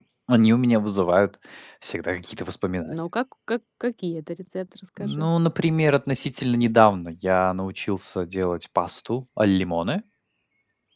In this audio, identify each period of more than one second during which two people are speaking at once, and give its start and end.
none

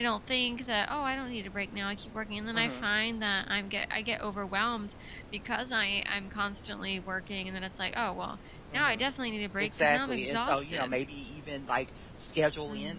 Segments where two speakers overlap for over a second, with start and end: 9.6-11.0

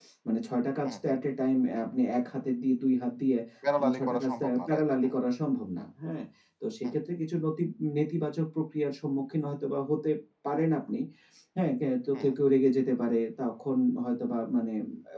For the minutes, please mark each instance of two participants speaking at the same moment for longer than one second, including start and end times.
3.8-5.2

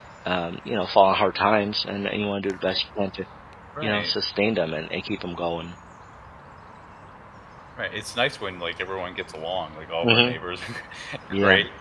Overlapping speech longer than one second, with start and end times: none

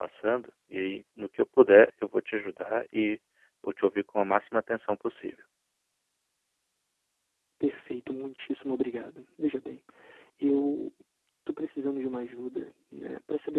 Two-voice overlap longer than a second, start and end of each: none

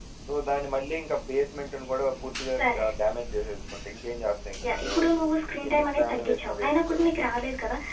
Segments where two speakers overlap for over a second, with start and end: 5.7-7.0

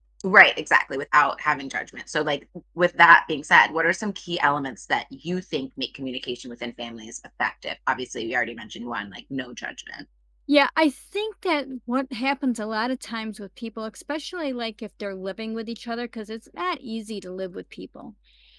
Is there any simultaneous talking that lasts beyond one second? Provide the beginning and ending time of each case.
none

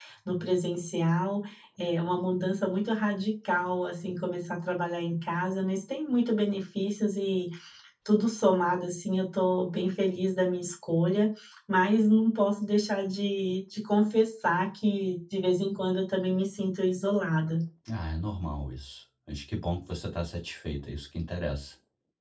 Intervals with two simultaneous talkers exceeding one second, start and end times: none

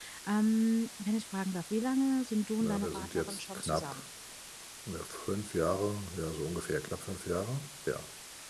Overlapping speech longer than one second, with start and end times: 2.6-4.0

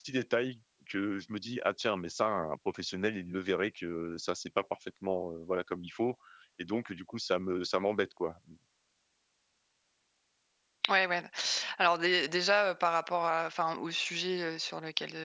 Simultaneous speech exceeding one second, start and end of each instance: none

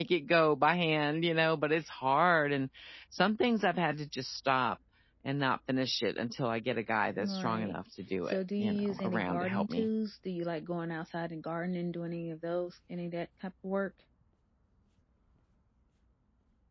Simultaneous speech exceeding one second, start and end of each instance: 8.2-9.9

